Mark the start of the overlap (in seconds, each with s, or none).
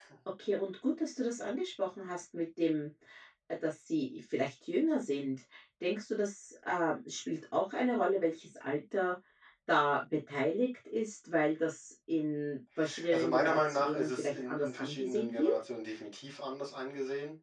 13.1 s